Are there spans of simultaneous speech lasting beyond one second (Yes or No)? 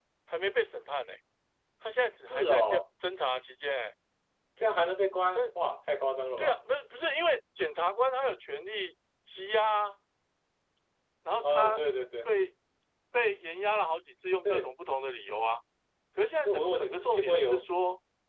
Yes